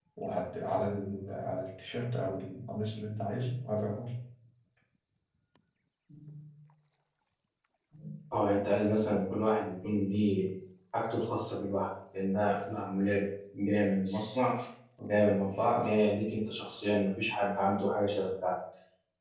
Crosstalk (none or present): none